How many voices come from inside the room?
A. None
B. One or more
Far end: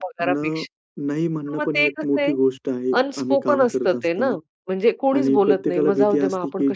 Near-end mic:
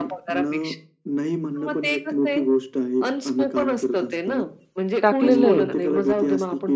B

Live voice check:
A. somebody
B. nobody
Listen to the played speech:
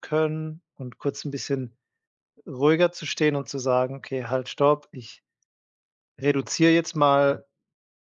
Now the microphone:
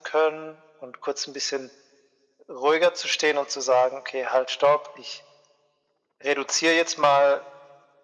B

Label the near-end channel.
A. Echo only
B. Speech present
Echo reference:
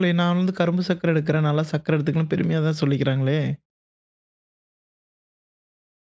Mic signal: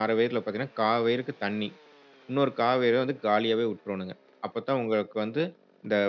B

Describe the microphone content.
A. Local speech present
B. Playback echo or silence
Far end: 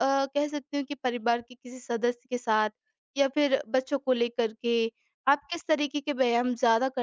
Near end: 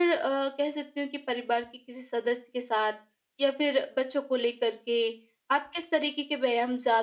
B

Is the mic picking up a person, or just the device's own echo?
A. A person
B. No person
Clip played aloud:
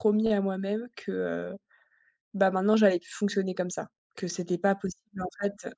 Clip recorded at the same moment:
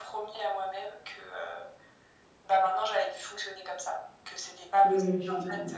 A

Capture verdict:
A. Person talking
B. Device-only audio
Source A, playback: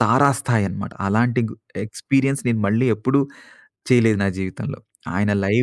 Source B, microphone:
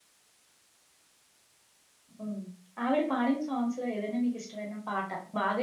A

